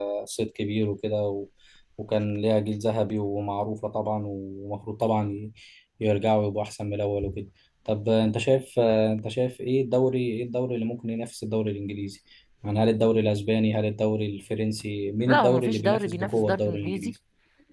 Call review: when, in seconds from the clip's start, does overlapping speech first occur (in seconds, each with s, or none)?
15.3 s